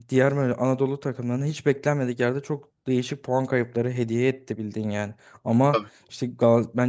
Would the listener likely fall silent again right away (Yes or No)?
Yes